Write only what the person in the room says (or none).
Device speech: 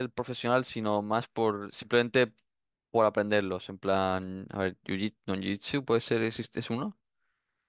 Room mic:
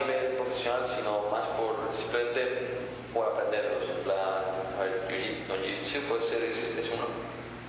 none